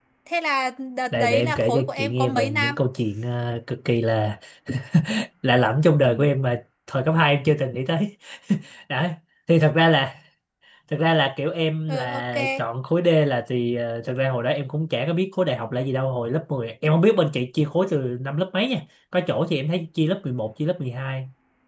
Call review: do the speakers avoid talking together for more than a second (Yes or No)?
No